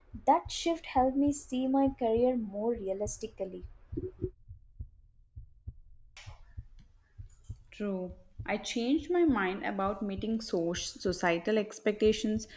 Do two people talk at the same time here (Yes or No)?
No